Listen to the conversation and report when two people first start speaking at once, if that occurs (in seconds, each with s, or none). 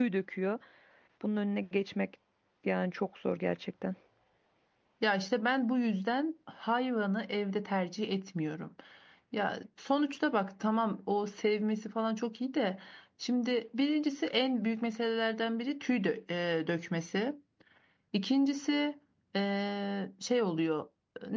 none